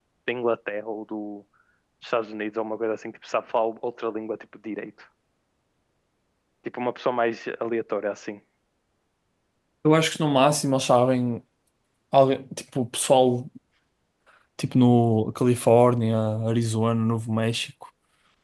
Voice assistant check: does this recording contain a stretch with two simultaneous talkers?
No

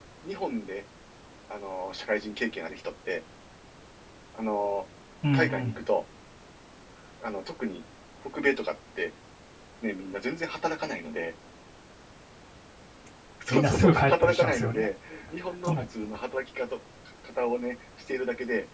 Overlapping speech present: Yes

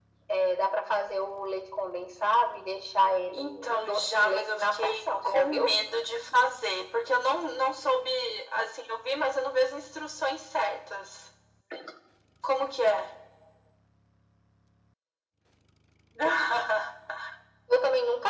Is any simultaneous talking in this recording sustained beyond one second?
Yes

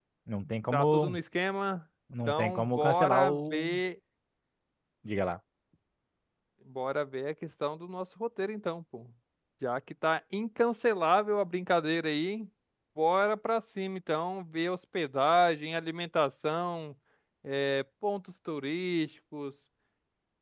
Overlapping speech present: Yes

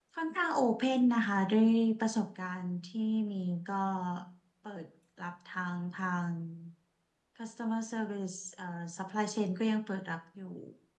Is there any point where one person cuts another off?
No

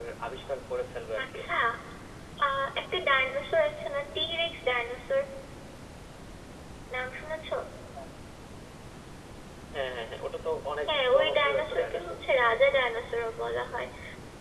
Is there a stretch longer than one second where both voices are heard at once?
Yes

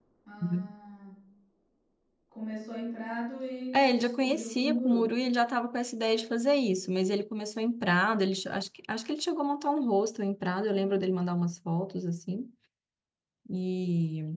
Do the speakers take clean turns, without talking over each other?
No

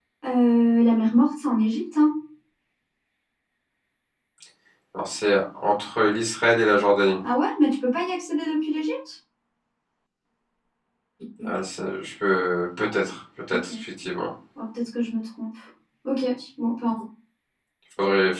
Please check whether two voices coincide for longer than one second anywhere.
No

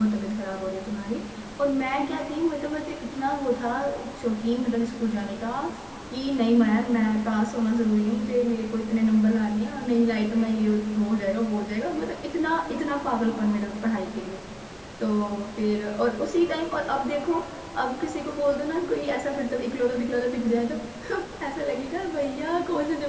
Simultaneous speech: No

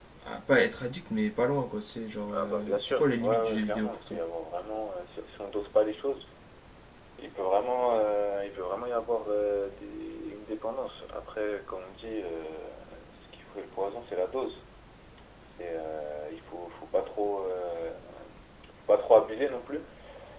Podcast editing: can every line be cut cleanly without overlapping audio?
No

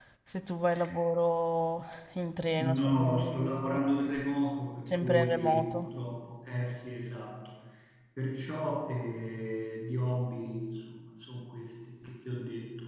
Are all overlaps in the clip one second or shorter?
No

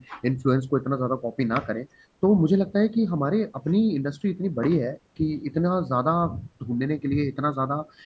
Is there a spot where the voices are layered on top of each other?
No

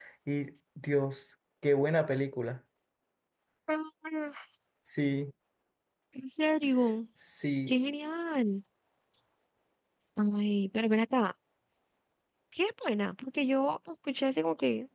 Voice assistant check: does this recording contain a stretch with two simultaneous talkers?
No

